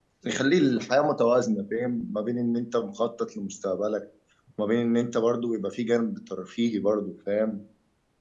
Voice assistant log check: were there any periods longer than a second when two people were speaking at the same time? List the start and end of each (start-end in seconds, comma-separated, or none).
none